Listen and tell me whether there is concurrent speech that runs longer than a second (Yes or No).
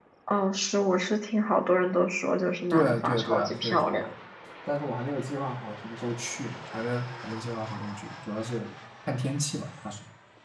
Yes